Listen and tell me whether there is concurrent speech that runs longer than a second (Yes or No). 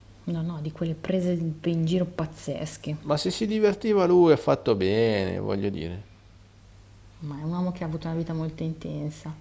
No